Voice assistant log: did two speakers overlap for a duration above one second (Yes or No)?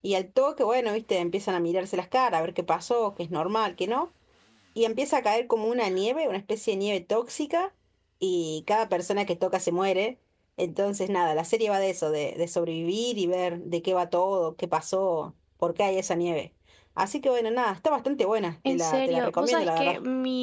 Yes